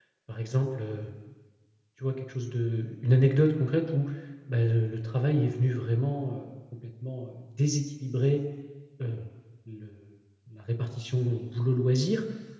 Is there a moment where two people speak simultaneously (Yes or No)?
No